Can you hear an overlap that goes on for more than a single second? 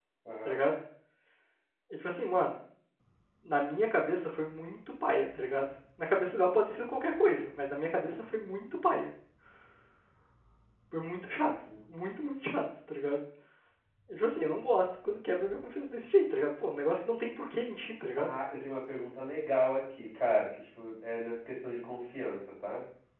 No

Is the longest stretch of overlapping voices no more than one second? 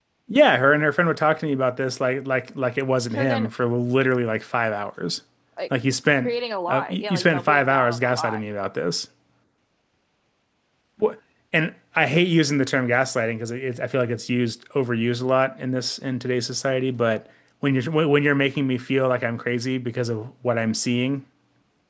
No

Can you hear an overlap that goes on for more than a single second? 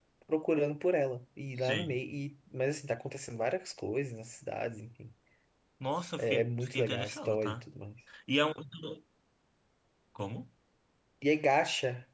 Yes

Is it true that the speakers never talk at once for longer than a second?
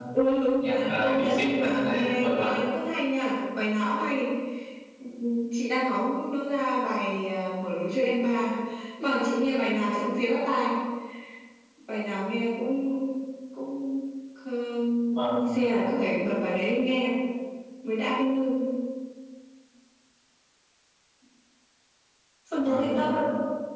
No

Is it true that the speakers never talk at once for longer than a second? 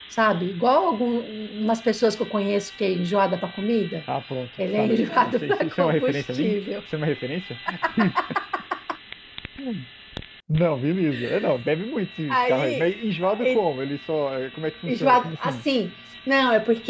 No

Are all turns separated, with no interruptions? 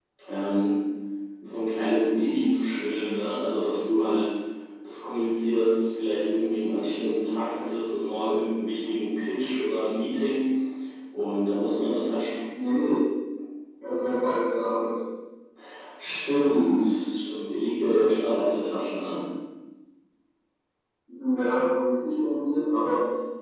Yes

